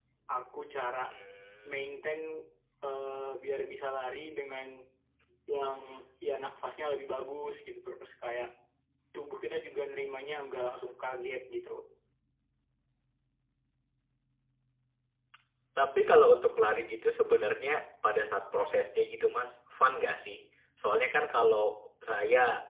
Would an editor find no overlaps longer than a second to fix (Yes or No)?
Yes